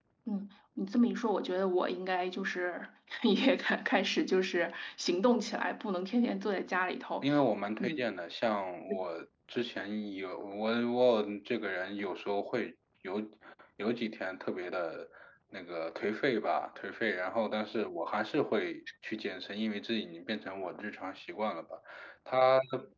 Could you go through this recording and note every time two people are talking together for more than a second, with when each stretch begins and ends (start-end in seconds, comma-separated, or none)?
none